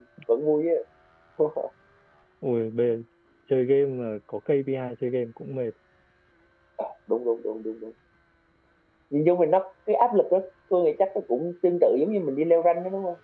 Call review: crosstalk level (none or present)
none